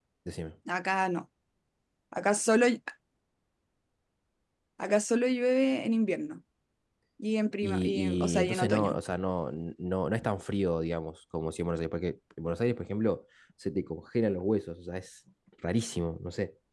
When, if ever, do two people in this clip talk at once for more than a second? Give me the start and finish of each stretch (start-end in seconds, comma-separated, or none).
7.6-9.0